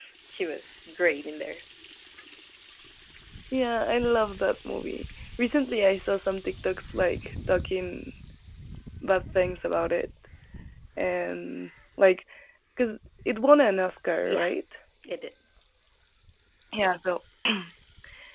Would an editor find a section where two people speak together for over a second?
No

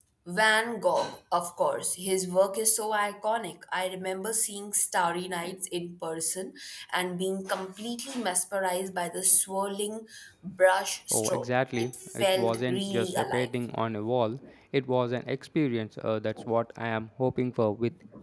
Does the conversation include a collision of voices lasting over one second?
Yes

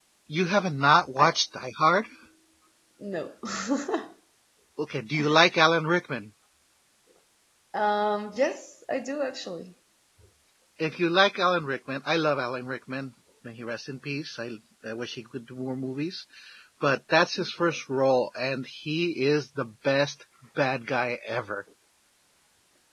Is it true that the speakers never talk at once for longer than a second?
Yes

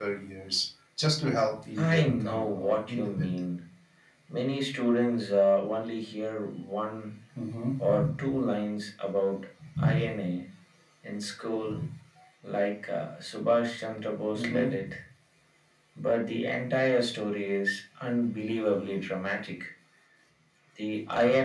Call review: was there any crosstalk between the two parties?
Yes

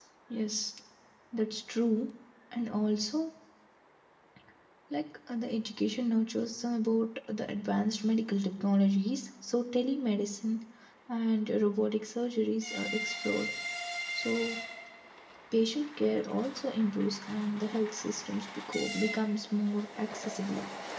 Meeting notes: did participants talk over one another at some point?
No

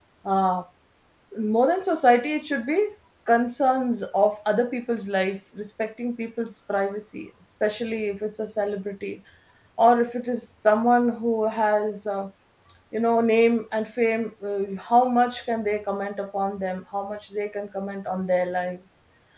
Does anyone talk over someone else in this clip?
No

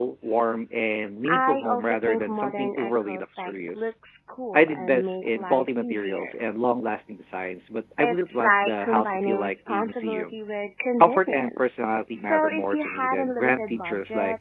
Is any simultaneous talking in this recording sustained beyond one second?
Yes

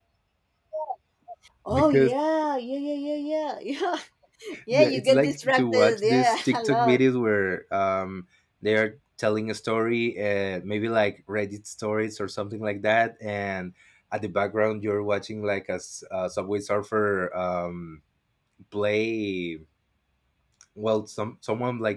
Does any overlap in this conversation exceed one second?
Yes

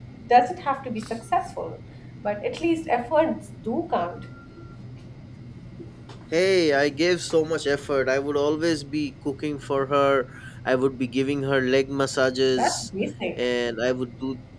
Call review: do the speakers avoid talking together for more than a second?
Yes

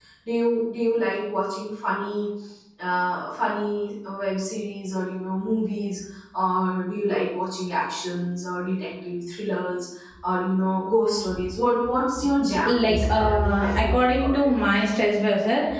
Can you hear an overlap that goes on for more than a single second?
Yes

